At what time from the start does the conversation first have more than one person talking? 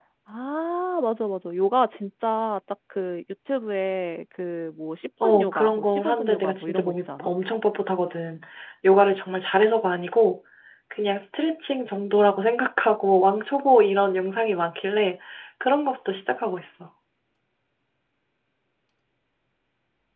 5.2 s

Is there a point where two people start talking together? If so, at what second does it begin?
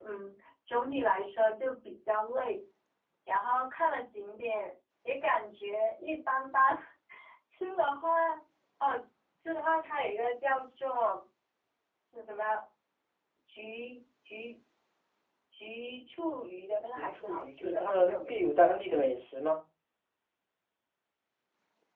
16.9 s

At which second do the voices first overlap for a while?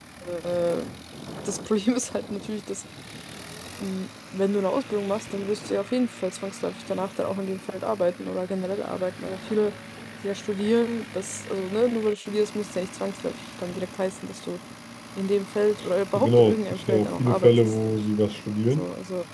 16.1 s

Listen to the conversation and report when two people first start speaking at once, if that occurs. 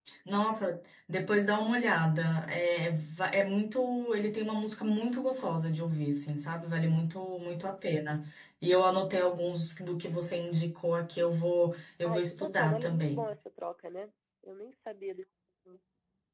12.0 s

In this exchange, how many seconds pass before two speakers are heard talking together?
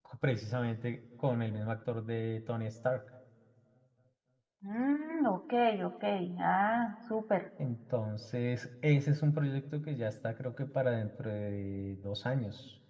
none

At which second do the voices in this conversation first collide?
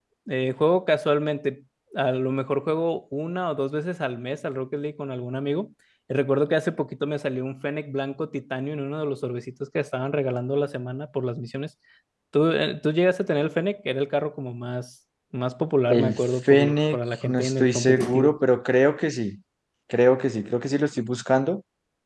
15.9 s

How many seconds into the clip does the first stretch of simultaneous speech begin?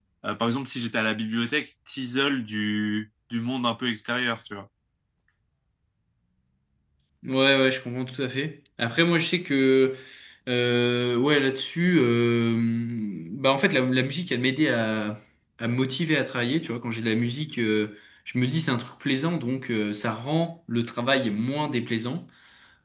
none

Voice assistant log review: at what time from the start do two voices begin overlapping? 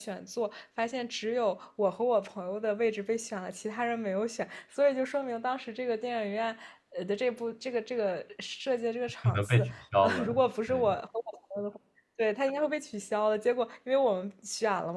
9.2 s

